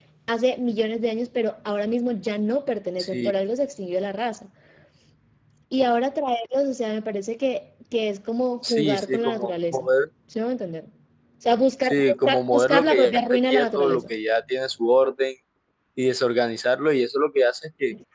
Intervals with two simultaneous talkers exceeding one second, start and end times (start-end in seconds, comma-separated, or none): 8.6-9.9, 11.8-14.1